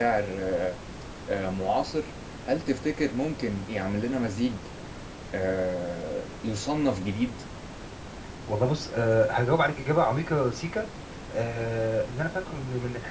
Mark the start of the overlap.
none

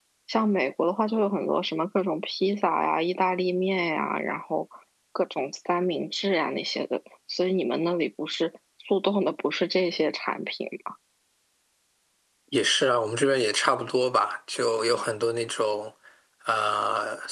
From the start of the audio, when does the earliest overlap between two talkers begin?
none

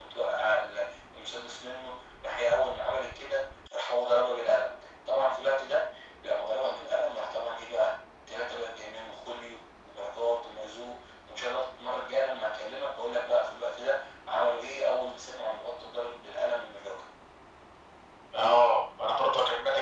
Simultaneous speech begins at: none

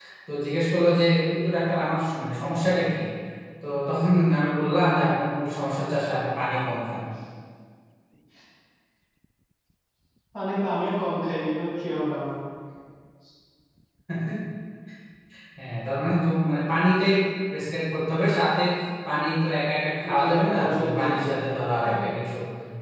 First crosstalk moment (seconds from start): 20.0 s

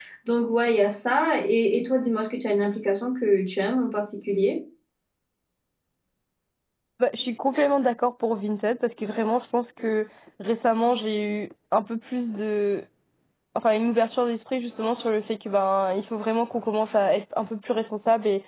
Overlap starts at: none

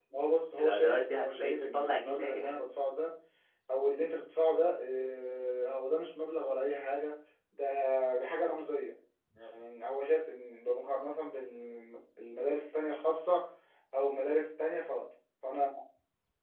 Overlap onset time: 0.6 s

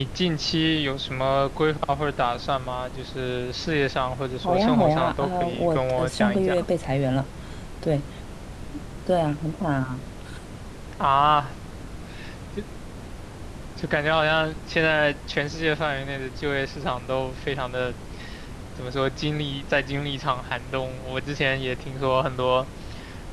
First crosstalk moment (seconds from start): 4.4 s

